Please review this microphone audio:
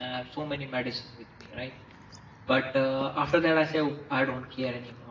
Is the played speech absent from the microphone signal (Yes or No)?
Yes